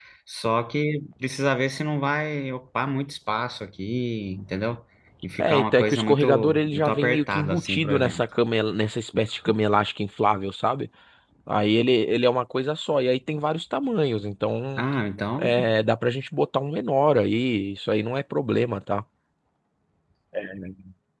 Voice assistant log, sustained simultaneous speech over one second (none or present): present